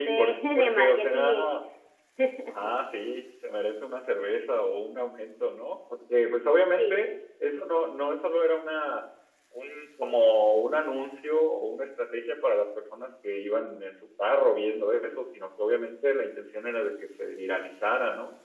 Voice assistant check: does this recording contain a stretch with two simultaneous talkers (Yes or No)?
Yes